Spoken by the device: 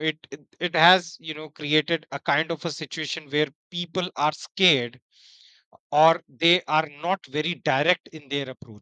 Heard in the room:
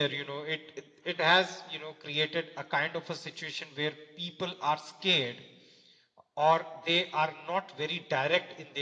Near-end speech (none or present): none